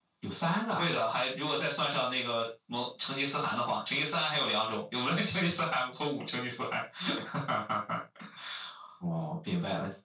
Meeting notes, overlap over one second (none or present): none